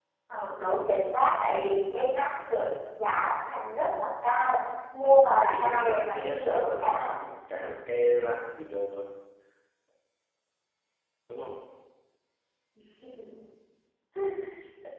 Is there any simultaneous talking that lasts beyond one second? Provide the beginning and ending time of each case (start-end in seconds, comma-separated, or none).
5.0-7.2